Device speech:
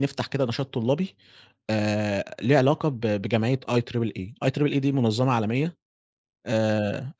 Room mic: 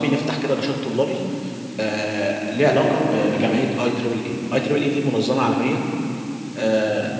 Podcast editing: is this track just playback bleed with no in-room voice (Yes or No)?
Yes